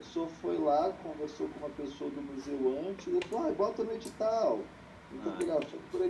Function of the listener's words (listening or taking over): listening